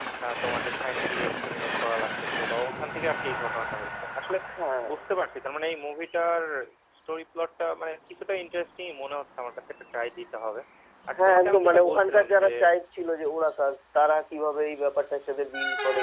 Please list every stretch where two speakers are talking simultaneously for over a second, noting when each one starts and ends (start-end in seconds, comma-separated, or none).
11.2-12.5